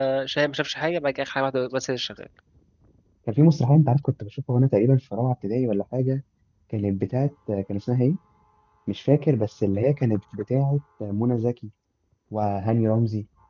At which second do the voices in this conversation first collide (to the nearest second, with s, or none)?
none